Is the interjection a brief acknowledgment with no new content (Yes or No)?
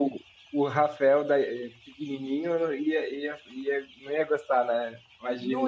No